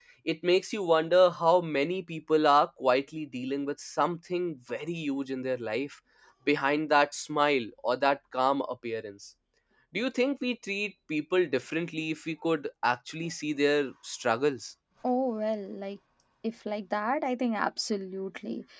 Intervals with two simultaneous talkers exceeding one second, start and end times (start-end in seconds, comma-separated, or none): none